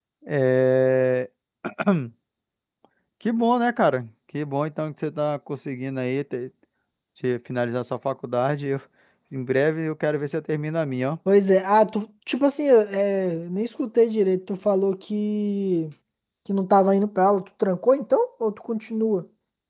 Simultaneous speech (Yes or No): No